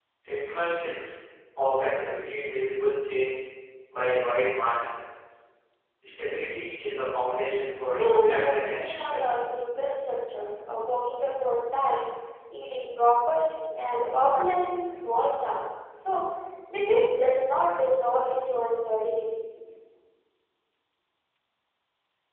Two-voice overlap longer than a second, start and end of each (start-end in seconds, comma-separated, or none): 7.9-9.2